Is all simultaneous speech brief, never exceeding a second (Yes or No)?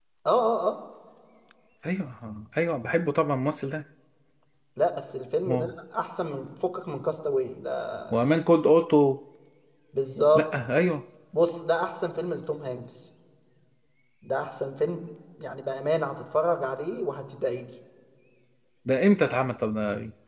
Yes